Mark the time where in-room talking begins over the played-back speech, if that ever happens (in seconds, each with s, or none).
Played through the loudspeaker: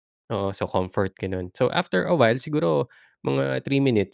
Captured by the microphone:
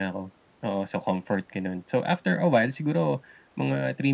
none